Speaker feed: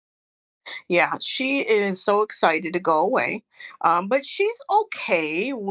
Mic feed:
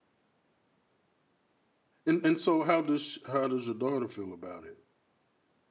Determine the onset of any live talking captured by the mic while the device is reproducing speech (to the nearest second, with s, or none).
2 s